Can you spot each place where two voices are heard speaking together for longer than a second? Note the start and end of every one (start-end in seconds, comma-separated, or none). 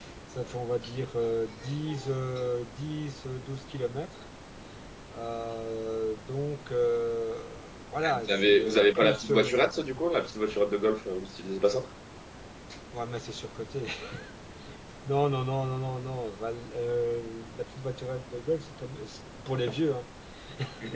8.1-9.5